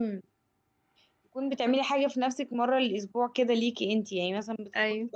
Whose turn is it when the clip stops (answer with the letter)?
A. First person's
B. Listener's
A